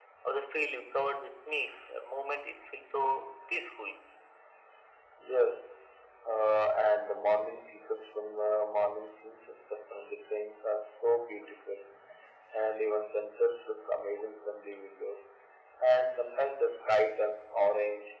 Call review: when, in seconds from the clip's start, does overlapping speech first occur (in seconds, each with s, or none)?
none